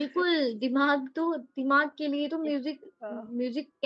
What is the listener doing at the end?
listening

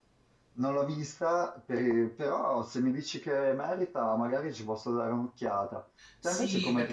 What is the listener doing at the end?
taking over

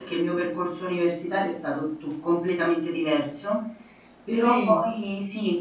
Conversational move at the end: listening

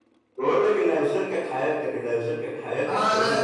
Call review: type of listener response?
taking over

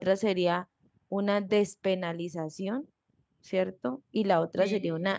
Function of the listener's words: listening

